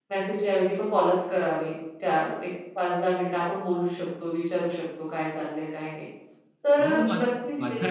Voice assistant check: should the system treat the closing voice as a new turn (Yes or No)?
Yes